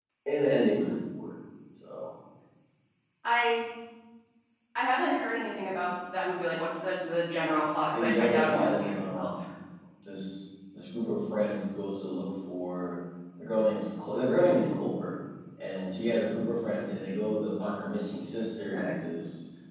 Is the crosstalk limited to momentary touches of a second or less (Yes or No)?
No